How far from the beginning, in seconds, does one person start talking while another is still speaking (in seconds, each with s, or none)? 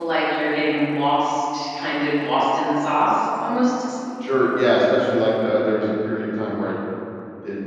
none